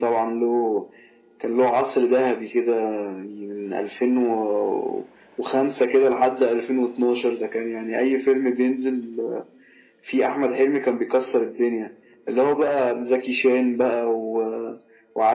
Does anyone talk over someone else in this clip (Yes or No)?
No